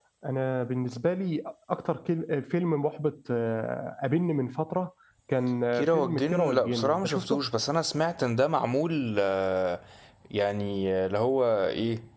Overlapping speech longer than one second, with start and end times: 5.8-7.4

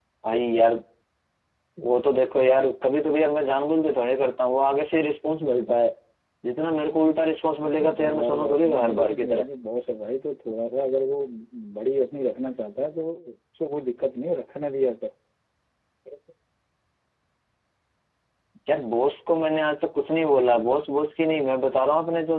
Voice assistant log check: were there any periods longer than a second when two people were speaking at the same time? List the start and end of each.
7.6-9.4

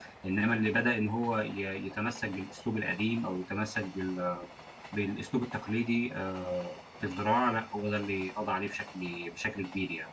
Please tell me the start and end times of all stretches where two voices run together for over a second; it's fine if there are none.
none

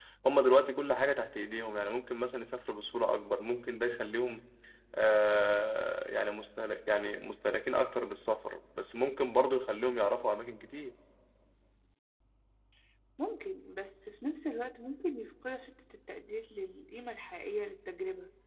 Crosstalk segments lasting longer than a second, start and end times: none

